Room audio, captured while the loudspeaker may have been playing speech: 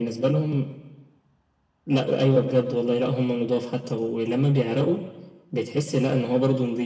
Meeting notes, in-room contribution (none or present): none